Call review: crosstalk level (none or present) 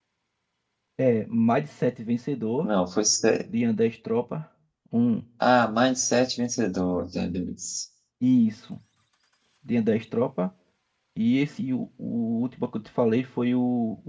none